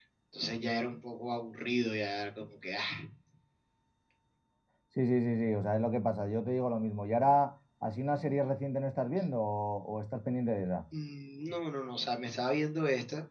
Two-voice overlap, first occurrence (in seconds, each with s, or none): none